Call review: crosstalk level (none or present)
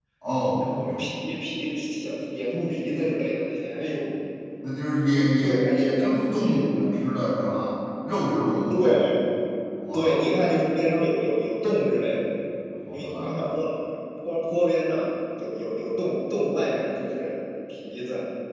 present